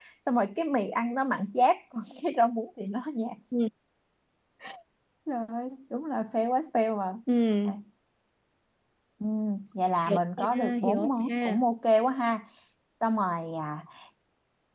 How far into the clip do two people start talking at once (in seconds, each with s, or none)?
10.1 s